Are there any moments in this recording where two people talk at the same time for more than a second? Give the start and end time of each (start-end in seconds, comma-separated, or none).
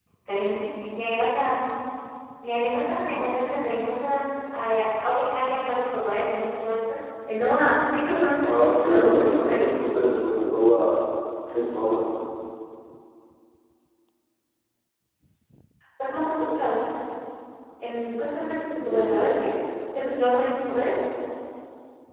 8.4-9.8